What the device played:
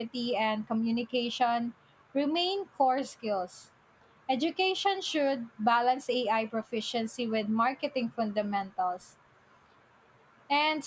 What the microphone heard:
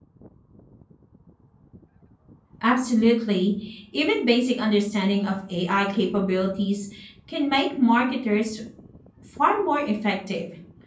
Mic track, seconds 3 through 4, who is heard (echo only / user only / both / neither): user only